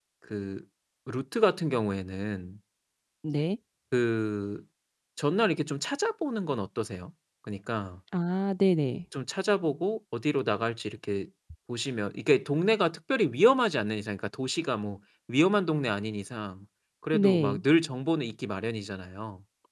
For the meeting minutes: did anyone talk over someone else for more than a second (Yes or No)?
No